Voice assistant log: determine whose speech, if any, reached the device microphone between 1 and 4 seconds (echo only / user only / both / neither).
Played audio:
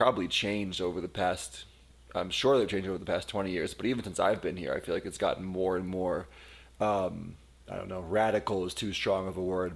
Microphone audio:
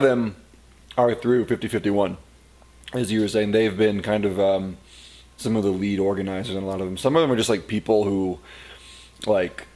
user only